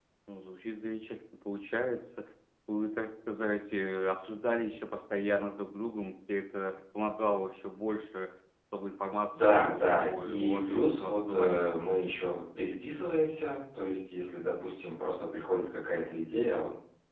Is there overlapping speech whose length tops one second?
Yes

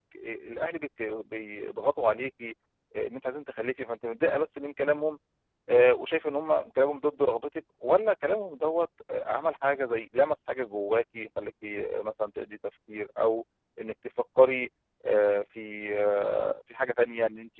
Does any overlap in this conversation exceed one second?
No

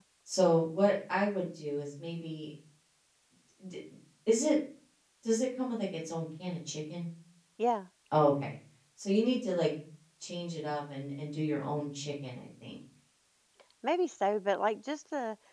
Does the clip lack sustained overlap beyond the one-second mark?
Yes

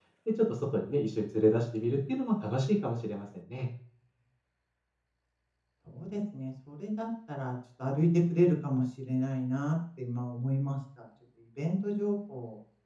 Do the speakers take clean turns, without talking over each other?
Yes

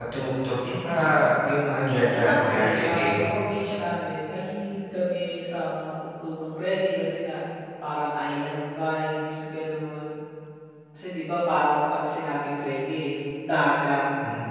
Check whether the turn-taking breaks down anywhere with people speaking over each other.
Yes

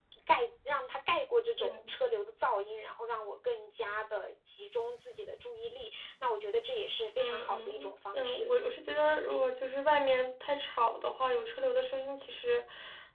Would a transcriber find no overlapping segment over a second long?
No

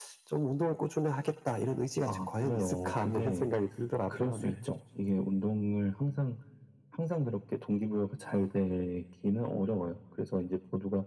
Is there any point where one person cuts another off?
Yes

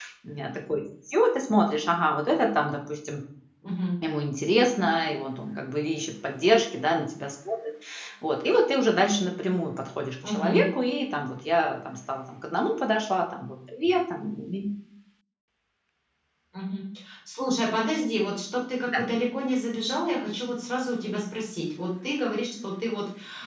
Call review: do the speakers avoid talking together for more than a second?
Yes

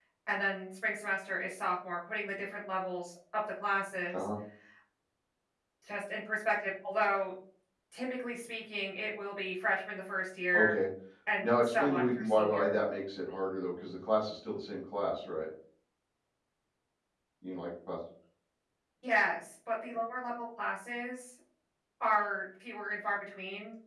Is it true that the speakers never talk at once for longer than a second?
No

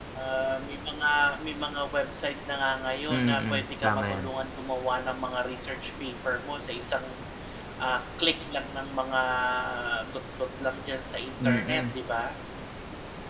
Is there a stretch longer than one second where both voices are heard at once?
Yes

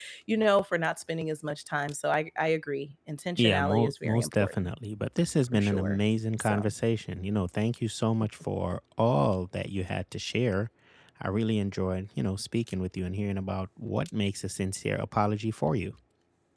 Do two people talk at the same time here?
Yes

